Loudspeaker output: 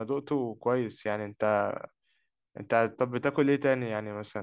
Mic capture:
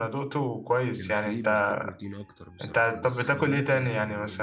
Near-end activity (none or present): present